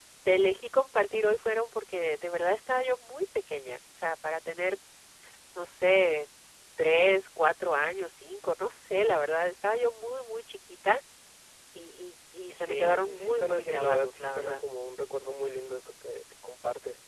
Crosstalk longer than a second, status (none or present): present